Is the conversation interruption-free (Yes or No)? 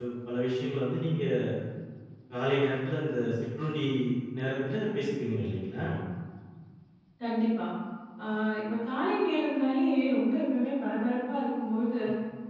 Yes